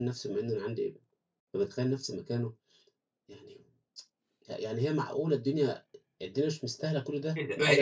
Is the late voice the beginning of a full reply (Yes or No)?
Yes